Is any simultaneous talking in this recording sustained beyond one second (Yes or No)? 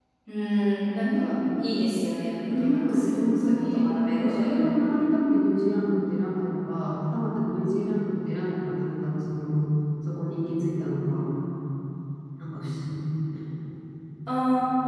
Yes